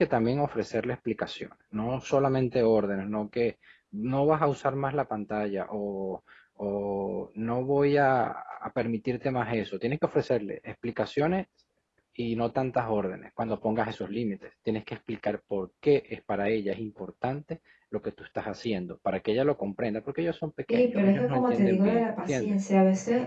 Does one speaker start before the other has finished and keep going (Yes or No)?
Yes